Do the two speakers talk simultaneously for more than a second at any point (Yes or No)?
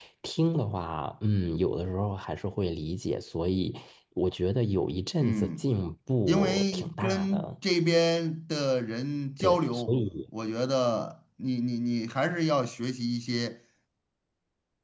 Yes